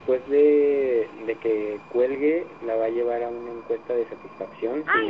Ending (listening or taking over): taking over